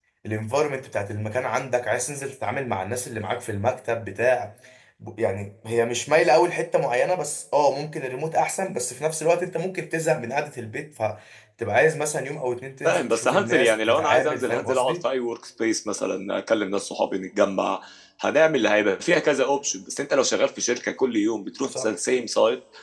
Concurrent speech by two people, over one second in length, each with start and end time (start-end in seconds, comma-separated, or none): 12.8-15.0